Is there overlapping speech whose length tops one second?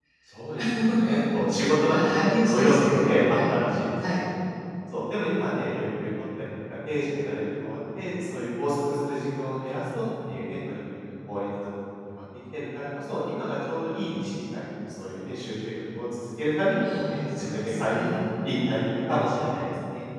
Yes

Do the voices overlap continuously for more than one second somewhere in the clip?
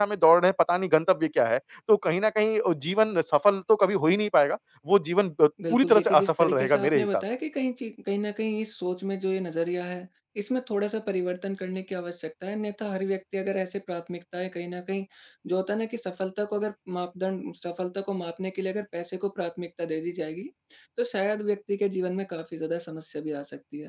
Yes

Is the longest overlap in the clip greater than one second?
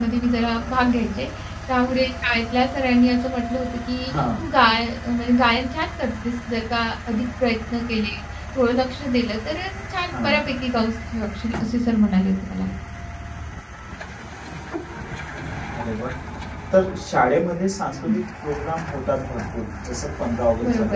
No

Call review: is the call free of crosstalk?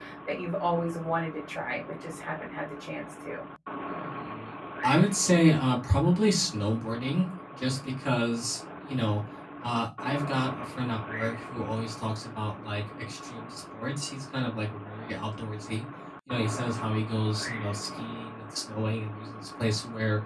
Yes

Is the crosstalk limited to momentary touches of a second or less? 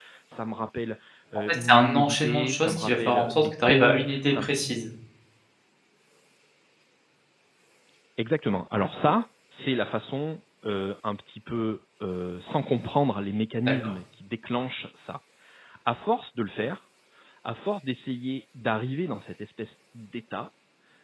No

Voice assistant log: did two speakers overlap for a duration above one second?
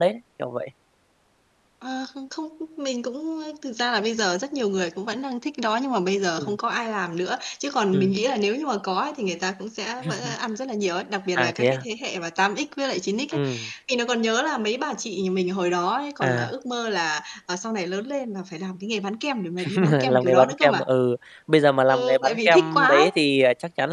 Yes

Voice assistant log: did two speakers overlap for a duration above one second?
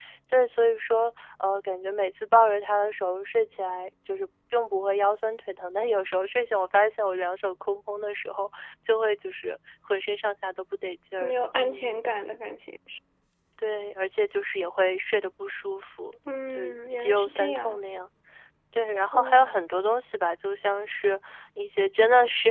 Yes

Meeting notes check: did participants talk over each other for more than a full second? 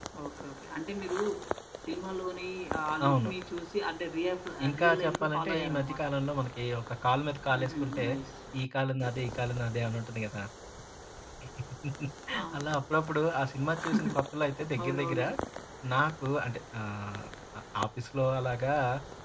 Yes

